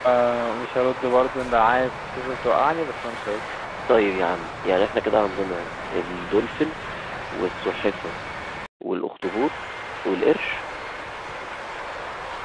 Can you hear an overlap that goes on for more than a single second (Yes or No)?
No